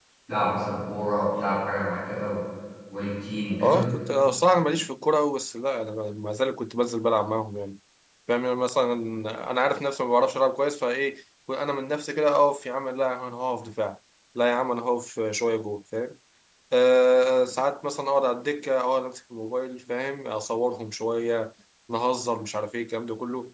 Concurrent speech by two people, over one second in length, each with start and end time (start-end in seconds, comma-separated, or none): none